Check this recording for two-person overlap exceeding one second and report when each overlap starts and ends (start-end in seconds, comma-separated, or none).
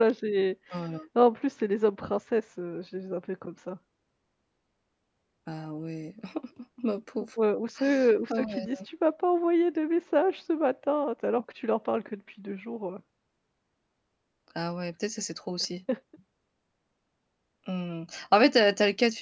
none